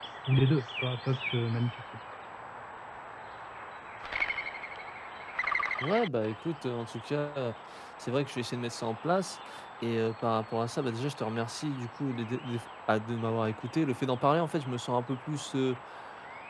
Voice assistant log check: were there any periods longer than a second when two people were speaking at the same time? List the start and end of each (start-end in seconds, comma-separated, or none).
none